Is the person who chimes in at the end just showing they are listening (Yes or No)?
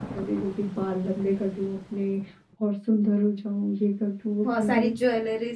No